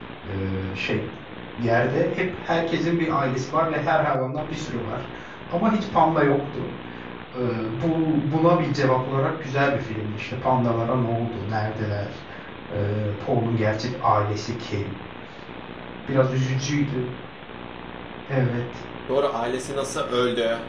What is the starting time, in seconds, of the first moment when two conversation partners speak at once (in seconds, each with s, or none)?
none